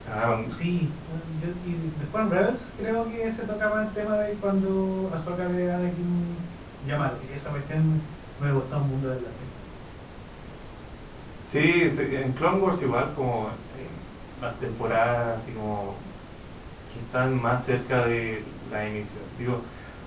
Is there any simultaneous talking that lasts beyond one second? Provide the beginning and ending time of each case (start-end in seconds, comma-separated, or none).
none